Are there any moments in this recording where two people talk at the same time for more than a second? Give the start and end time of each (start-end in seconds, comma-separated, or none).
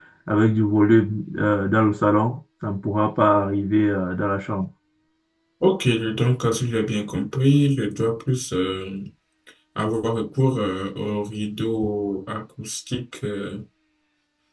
none